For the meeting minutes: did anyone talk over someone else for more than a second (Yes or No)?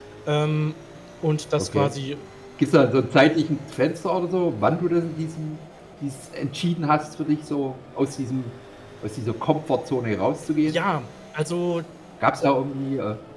No